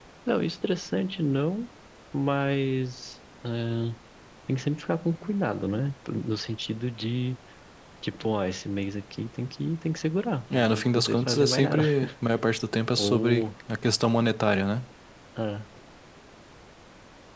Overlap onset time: 10.5 s

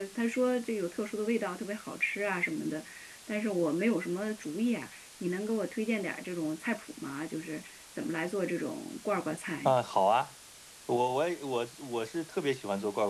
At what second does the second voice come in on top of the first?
none

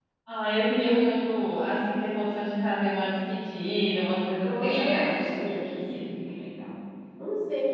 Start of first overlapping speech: 4.4 s

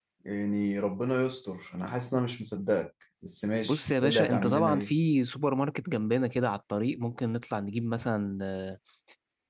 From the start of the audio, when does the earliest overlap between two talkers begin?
3.6 s

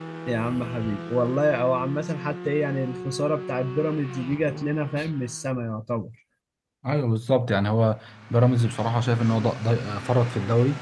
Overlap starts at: none

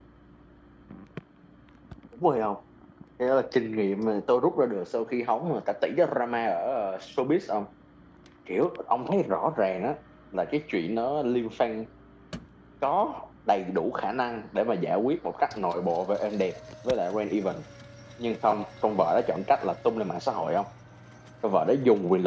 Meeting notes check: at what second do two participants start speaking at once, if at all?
none

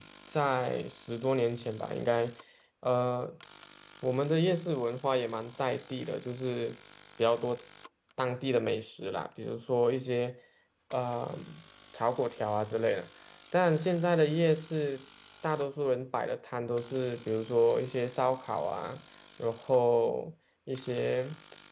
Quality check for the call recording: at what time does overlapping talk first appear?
none

